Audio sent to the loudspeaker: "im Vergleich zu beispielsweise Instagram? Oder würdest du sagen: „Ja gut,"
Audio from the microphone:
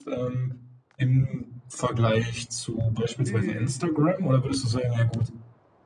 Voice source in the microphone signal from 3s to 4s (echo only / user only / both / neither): both